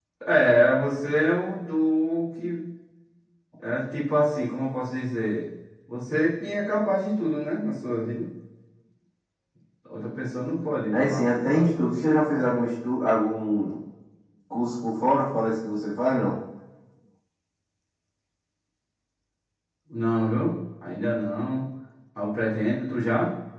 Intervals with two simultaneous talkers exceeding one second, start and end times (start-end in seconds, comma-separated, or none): 11.0-12.4